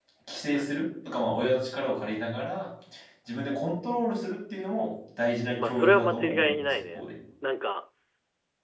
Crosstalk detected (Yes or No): Yes